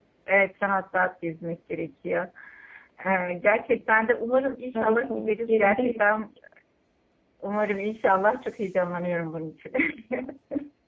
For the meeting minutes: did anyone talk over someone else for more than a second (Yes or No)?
Yes